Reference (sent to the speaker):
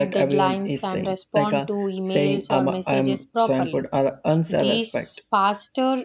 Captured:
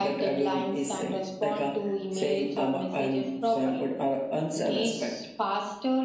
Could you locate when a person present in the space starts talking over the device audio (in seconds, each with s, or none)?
none